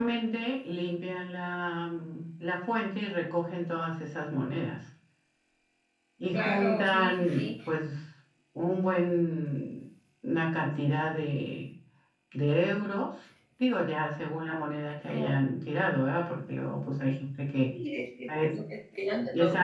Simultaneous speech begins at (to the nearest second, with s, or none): 6 s